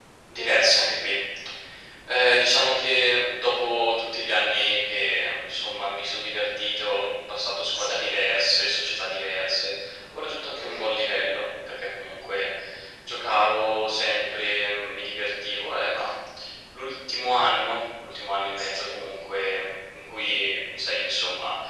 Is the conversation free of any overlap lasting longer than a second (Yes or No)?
Yes